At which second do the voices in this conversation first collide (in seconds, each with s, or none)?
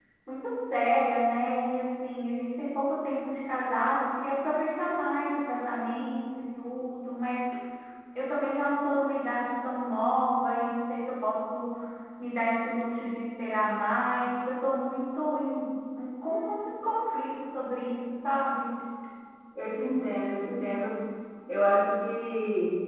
none